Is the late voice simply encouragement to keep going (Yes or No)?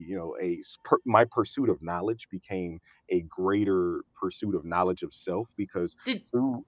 Yes